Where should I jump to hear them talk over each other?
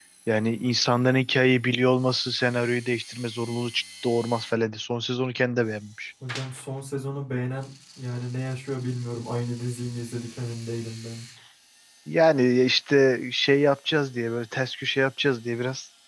none

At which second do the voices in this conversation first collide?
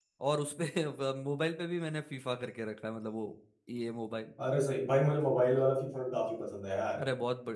none

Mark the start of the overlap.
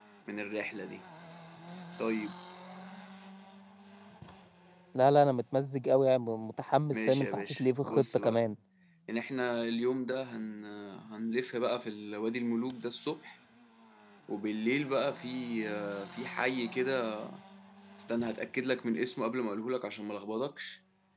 7 s

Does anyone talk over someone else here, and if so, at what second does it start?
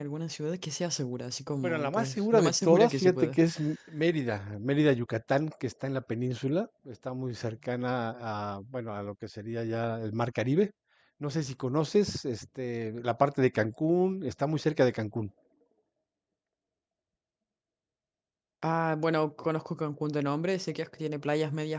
2 s

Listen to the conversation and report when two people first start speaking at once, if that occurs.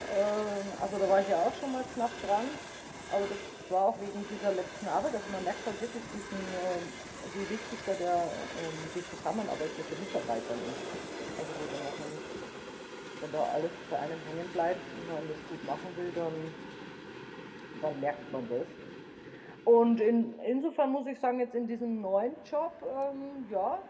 none

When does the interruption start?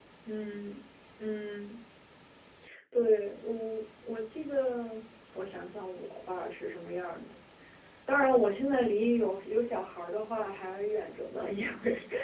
none

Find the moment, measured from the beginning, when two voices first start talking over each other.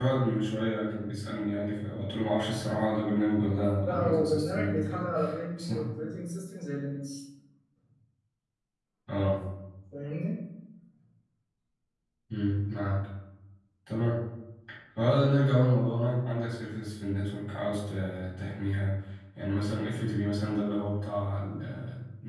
4 s

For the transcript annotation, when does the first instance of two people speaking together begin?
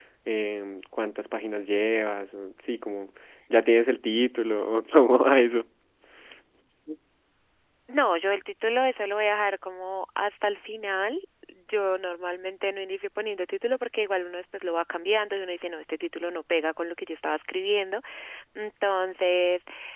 none

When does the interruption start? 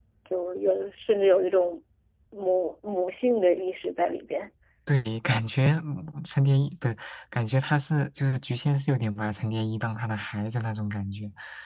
none

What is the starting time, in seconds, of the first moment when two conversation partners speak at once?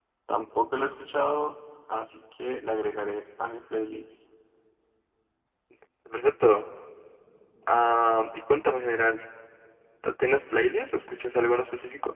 none

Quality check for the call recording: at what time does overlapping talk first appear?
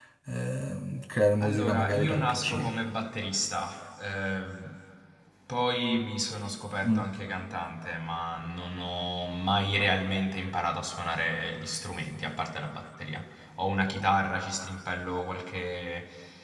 1 s

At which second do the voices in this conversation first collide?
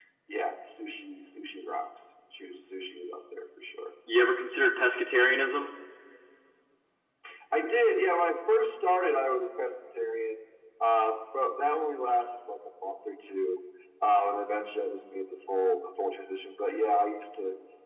none

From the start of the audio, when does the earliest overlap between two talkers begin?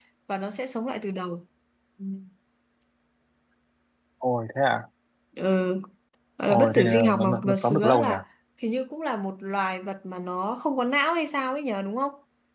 6 s

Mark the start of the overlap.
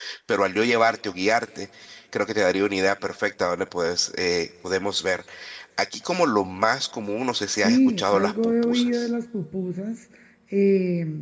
8 s

